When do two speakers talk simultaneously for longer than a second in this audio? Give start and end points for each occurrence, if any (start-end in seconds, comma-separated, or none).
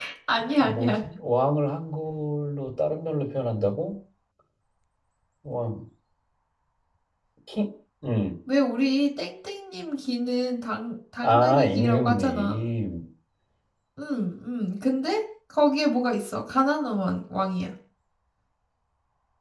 11.2-12.6